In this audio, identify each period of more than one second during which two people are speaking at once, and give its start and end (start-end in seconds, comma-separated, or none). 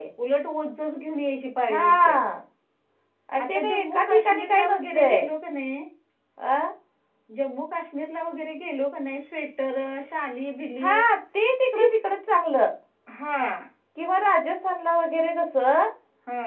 3.5-5.2